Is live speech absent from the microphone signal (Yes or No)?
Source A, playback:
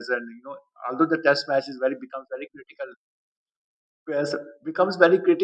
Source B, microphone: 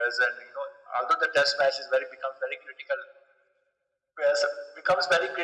Yes